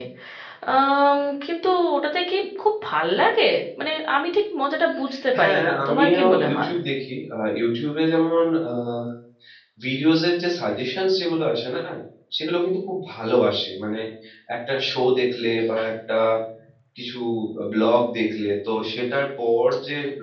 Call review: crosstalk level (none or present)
present